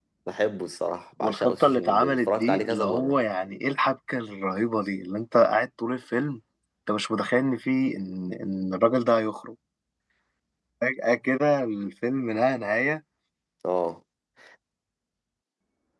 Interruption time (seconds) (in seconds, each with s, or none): 1.2 s